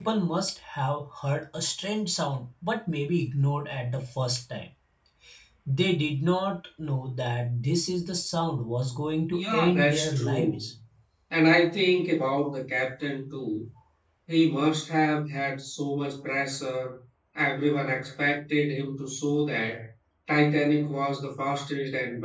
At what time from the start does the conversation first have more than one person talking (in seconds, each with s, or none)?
9.3 s